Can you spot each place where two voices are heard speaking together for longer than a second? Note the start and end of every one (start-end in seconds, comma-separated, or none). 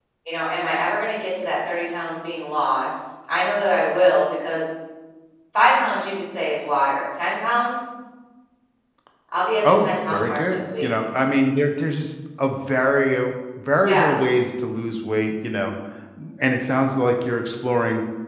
9.7-10.9